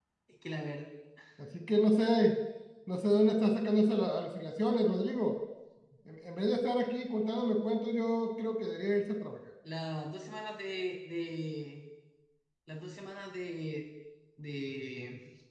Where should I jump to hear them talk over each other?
none

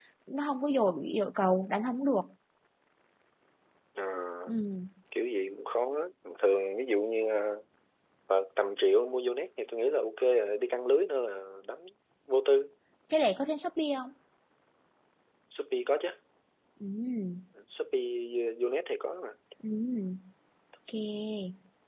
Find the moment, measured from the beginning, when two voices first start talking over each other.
none

